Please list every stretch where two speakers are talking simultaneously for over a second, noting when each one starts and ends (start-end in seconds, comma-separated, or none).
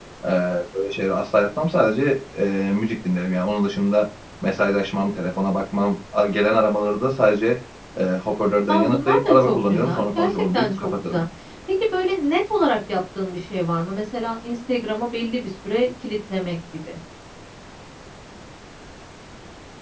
8.7-11.2